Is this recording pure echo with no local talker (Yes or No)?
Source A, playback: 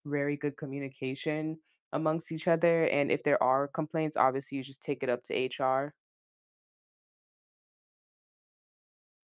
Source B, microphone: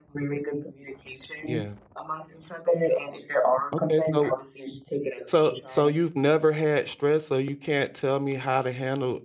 No